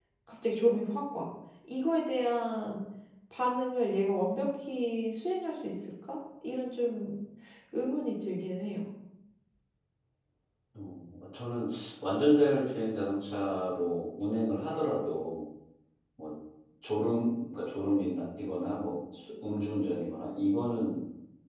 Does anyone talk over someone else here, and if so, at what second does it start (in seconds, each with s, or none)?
none